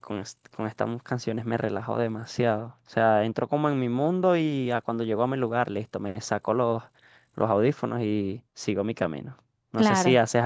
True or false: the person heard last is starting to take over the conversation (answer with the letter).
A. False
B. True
A